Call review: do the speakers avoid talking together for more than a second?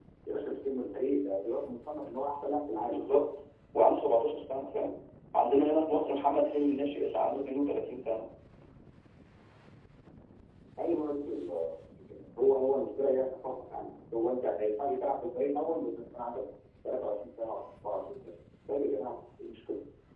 Yes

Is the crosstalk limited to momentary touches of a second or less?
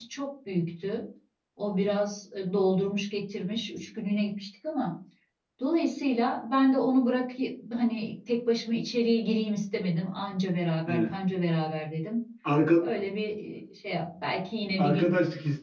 Yes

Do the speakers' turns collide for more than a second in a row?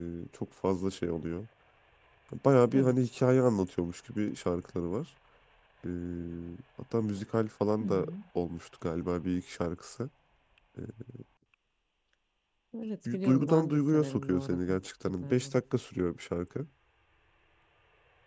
Yes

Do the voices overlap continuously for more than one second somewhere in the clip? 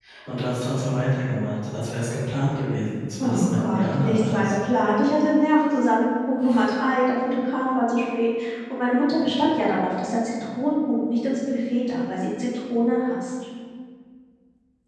Yes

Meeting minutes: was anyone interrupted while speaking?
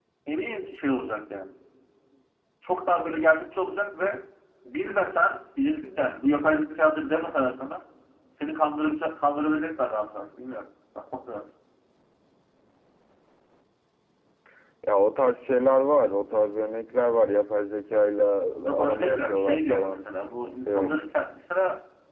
Yes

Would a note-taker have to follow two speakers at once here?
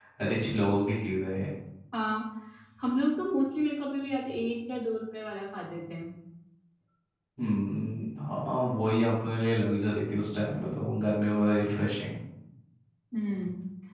No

